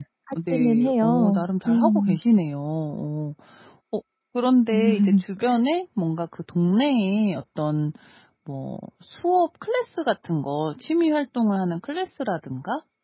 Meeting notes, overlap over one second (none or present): present